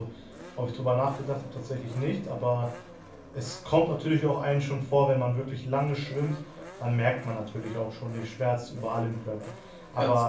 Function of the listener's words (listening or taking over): listening